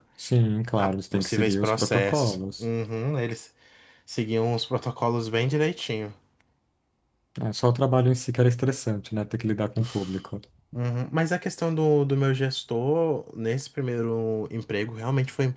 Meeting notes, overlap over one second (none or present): present